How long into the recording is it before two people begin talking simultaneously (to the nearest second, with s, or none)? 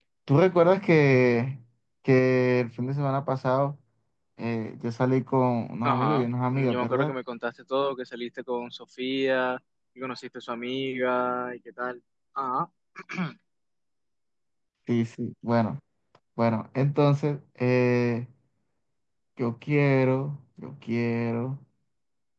6 s